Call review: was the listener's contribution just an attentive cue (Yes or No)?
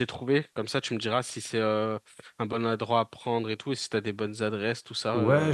No